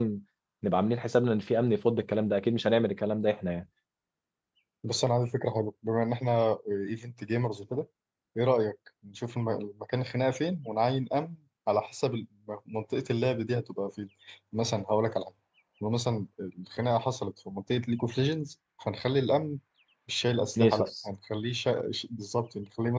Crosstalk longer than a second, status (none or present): none